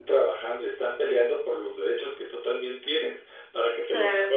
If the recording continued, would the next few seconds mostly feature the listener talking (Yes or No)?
No